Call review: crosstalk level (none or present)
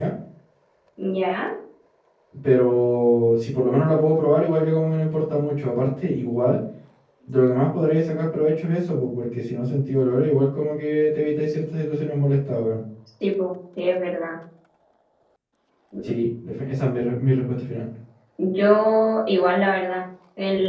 none